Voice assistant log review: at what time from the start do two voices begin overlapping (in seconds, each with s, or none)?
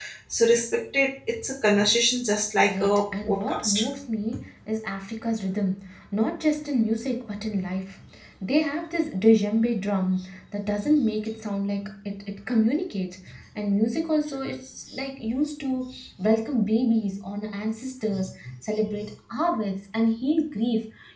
2.6 s